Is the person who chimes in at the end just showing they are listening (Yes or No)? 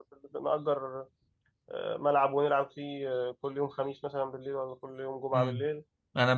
No